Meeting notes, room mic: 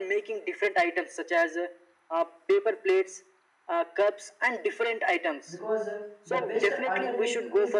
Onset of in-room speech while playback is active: 5 s

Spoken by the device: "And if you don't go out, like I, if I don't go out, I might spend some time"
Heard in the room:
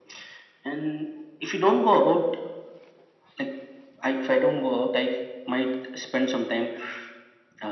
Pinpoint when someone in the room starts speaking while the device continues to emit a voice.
none

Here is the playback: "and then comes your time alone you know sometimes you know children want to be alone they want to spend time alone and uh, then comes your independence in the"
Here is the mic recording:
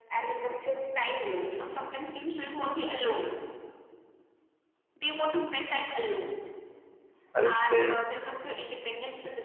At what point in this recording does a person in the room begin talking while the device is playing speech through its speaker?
7 s

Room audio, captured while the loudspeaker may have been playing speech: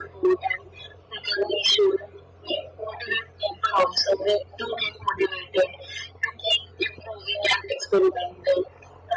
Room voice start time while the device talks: none

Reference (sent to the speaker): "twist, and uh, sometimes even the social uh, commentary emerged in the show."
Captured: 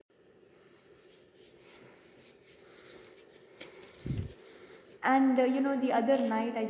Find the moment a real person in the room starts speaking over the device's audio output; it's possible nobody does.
5 s

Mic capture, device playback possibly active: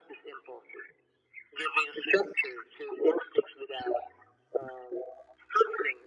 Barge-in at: none

